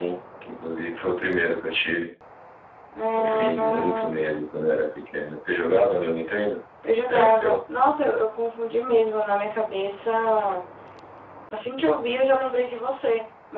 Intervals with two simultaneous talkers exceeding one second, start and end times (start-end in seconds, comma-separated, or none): 3.1-4.4